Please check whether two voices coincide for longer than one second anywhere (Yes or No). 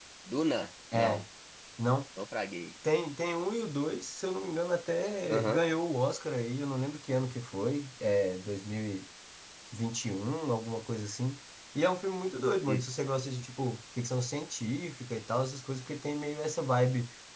No